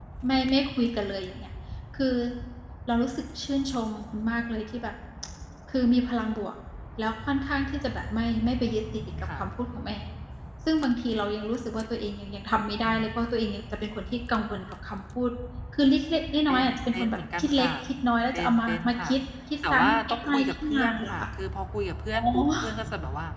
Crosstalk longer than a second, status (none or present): present